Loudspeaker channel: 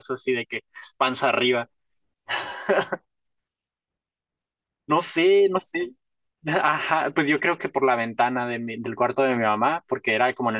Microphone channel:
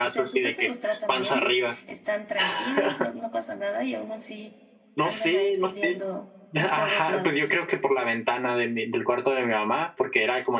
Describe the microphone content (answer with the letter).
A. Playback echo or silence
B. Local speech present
B